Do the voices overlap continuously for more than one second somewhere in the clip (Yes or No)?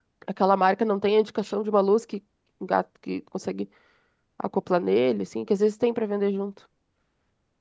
No